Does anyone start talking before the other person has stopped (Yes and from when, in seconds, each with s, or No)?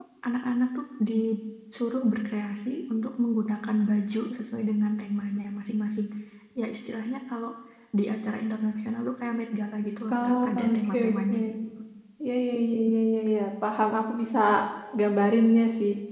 Yes, from 10.1 s